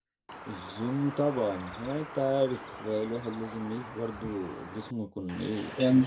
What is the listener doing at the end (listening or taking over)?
taking over